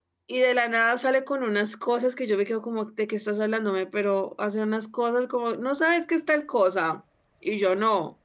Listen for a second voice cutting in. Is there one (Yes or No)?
No